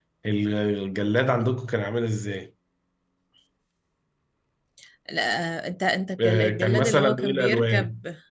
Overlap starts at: 6.2 s

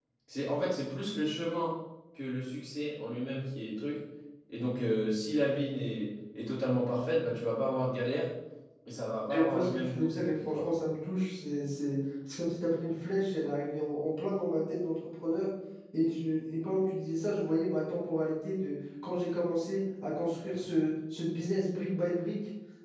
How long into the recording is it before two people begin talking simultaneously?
9.3 s

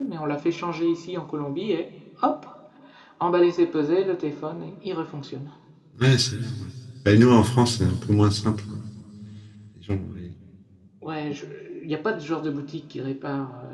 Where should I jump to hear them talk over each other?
none

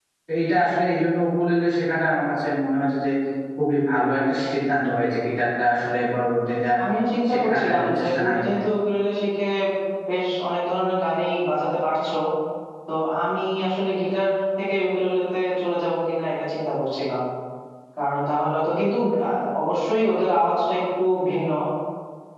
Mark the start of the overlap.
7.3 s

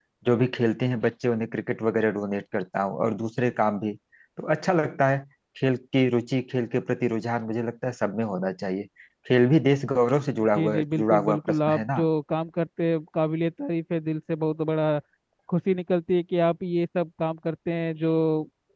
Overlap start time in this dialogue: 10.6 s

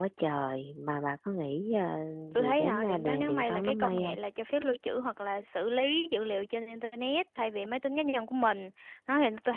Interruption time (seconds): 2.4 s

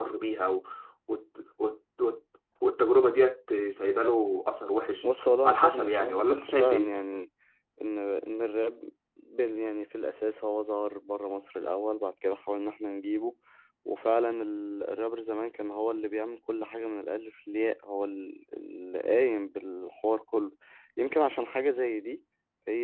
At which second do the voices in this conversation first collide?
5.0 s

